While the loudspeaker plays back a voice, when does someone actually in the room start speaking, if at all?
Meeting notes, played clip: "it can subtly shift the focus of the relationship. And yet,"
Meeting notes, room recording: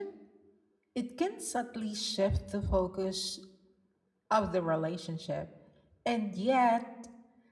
none

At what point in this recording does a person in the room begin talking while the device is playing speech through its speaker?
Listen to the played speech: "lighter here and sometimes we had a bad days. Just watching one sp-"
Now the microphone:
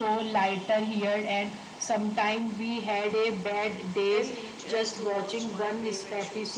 4 s

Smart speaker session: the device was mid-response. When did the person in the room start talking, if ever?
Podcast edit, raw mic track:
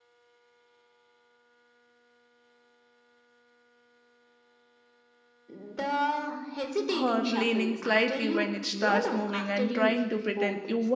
7 s

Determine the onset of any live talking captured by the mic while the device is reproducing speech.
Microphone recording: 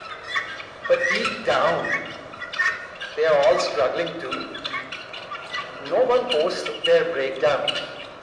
none

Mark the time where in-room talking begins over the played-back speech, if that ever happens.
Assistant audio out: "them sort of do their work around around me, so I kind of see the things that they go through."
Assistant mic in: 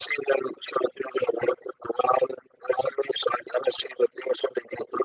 none

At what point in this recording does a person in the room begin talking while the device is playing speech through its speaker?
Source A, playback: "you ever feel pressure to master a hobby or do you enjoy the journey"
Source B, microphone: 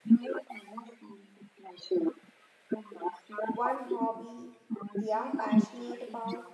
3 s

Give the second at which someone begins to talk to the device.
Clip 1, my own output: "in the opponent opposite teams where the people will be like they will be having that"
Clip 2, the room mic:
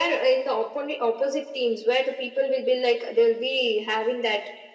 none

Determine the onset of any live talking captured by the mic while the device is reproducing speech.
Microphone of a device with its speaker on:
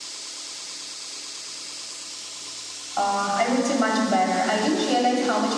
3 s

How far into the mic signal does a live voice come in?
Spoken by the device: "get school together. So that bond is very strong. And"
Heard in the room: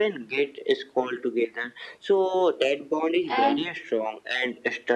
3 s

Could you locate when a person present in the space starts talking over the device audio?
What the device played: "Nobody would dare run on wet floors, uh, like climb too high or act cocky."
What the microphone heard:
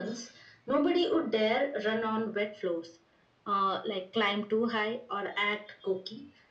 none

